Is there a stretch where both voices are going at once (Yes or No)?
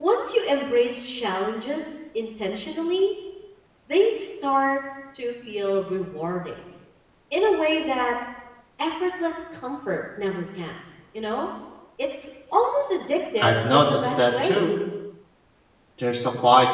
Yes